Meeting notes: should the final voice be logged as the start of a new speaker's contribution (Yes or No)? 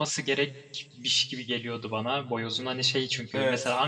No